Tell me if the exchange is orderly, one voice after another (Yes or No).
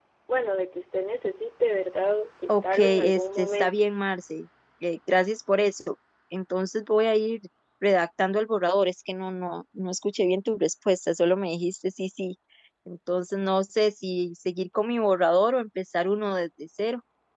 No